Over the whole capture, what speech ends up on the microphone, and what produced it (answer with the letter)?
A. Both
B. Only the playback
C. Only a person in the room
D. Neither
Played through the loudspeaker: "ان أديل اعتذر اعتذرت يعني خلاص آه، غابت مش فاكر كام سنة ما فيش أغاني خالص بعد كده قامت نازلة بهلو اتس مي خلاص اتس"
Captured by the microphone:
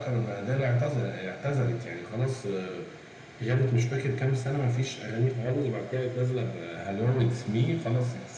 B